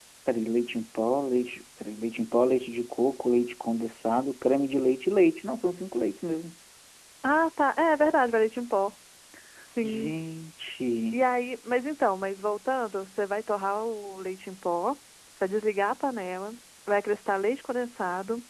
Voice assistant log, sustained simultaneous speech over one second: none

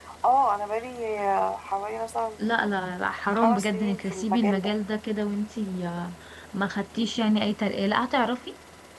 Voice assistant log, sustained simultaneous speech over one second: present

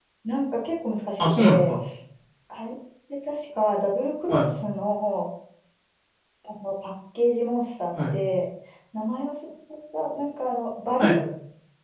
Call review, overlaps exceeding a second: none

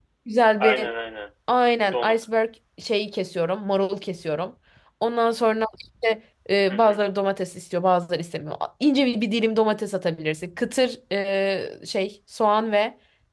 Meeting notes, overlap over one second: none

